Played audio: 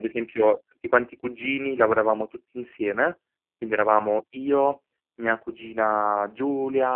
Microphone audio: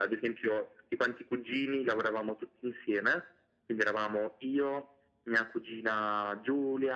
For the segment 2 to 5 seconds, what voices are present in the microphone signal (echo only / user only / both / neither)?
echo only